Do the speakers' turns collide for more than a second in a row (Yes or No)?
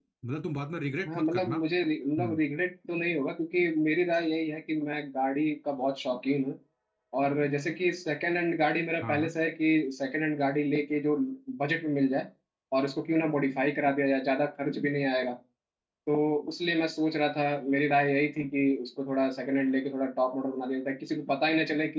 No